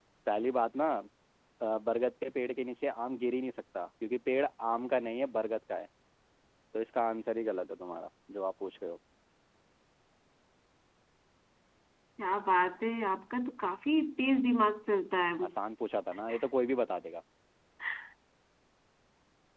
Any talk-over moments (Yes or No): No